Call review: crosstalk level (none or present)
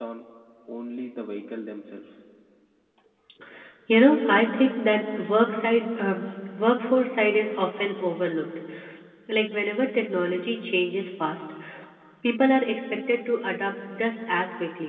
none